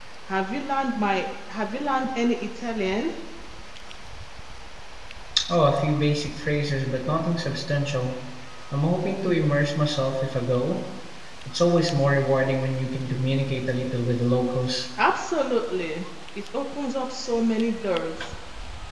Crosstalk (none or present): none